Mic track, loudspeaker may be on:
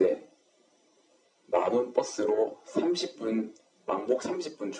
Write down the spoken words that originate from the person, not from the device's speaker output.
none

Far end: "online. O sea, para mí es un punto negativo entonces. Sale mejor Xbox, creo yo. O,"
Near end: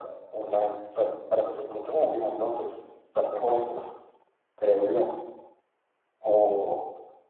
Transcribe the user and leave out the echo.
none

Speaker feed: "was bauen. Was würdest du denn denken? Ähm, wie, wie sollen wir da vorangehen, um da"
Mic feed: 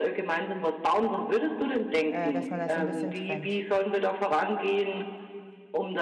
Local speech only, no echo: äh, dass man das so ein bisschen trennt.

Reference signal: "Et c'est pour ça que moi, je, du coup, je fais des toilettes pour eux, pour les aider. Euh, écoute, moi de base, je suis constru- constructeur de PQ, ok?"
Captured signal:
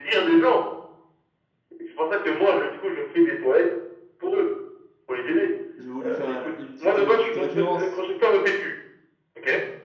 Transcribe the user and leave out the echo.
j'ai voulu faire un- une petite, une petite référence.

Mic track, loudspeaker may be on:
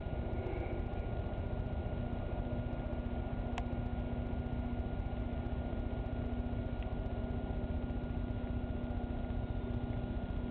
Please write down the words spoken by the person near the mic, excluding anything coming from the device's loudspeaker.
none

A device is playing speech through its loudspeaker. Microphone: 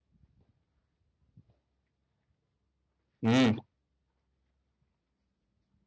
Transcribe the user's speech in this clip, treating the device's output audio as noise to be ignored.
امم

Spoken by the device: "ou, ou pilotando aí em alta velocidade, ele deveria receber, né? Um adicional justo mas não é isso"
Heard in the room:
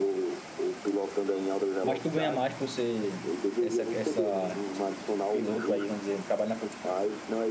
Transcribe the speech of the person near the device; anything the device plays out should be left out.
Mas tu ganha mais por ser essa, essa, esse piloto aí, vamos dizer, trabalha na polícia,

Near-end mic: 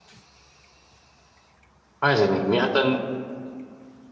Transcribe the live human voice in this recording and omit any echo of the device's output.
Weiß ich nicht, mir hat er nicht,

